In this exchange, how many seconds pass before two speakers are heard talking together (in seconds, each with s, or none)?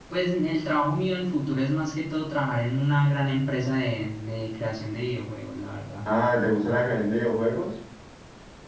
none